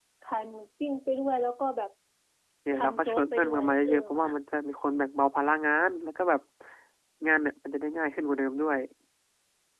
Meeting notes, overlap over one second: present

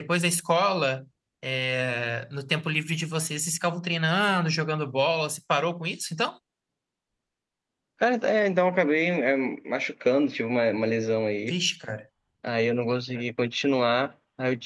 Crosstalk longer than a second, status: none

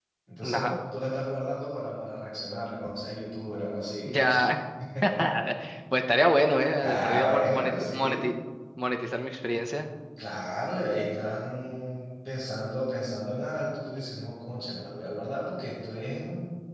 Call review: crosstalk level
present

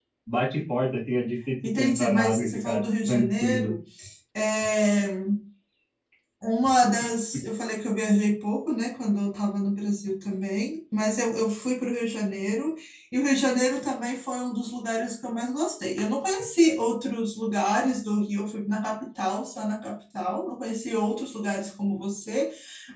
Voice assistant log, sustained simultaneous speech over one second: present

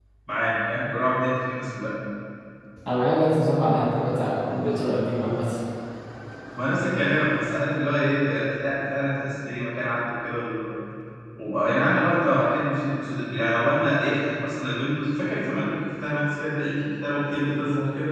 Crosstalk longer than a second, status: none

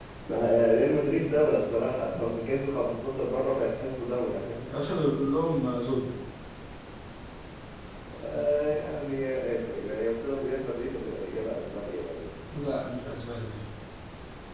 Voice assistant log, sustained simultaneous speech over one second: none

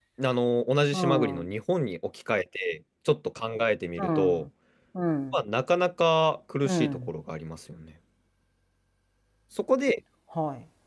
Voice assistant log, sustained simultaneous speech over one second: none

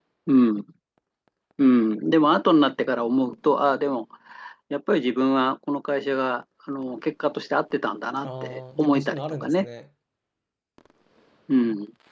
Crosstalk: present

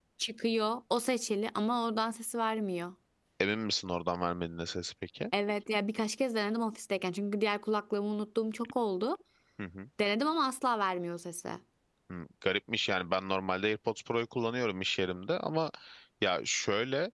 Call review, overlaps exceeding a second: none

